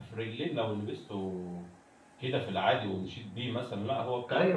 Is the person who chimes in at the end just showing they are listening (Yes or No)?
No